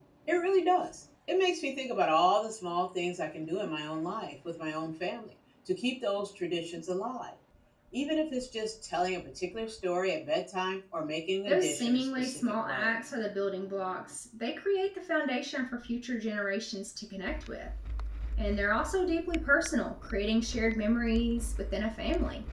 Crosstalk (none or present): present